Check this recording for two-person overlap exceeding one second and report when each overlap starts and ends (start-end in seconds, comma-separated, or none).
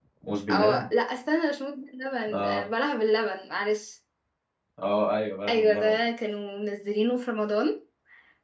none